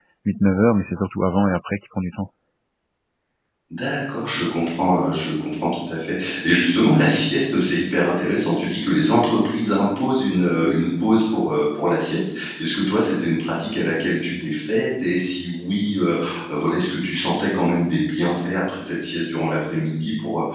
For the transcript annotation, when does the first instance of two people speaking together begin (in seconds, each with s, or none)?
none